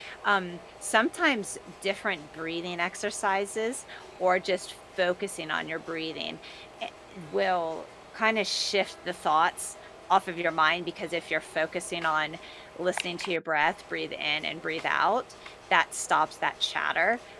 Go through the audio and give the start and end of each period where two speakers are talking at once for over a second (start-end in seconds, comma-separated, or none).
none